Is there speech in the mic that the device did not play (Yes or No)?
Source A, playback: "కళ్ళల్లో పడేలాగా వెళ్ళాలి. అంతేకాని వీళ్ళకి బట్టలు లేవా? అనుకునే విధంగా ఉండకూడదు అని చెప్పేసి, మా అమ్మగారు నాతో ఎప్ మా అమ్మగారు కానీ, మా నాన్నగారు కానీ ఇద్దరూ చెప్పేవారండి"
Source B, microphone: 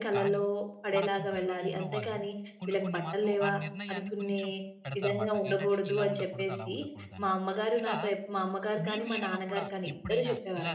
Yes